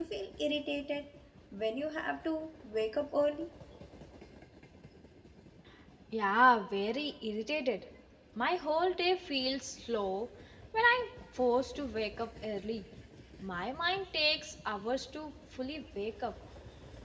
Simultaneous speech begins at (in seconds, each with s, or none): none